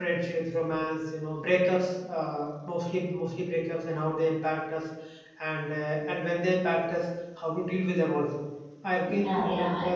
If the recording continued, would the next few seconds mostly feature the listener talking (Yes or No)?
Yes